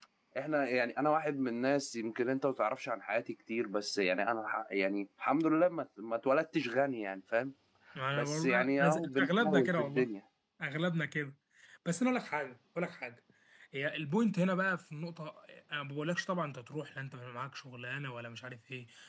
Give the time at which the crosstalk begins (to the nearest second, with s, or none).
8 s